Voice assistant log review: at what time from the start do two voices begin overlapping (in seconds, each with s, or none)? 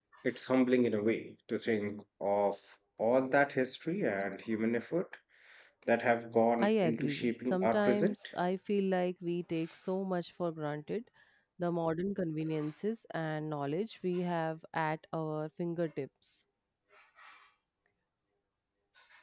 6.6 s